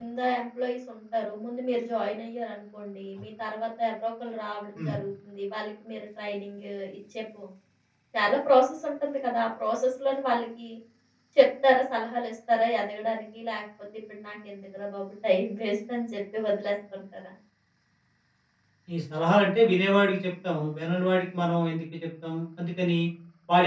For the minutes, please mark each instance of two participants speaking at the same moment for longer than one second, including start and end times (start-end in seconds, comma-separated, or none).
none